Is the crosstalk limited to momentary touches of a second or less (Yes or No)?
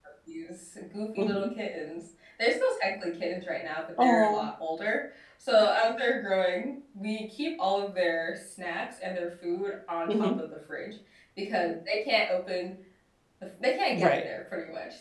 Yes